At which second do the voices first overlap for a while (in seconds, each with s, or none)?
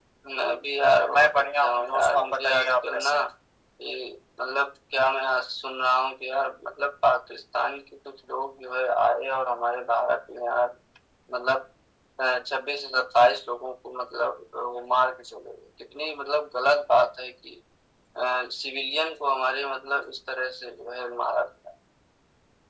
1.1 s